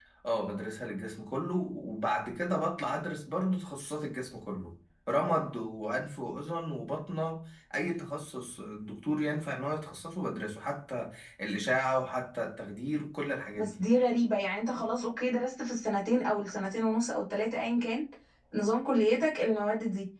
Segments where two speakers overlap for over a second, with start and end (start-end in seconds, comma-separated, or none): none